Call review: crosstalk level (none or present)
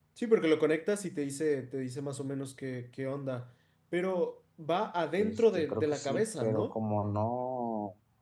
present